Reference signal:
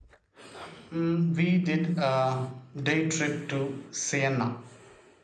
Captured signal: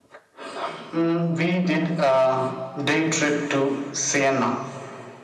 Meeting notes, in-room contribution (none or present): none